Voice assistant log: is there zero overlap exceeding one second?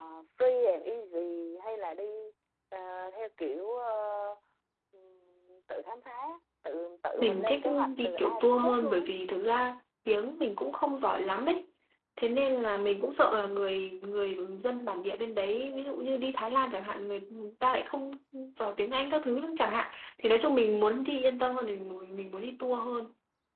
No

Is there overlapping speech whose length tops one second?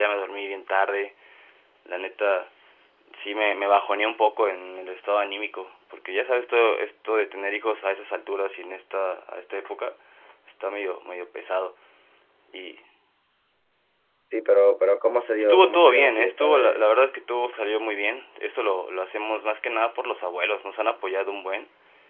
Yes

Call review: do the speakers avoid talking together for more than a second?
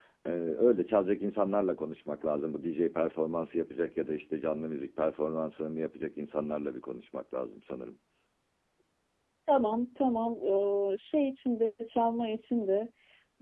Yes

